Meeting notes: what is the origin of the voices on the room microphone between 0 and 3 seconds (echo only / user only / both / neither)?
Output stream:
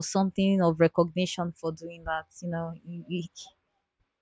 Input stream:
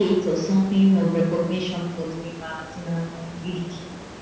echo only